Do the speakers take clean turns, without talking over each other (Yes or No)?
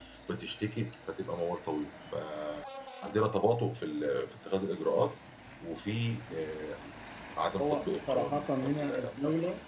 No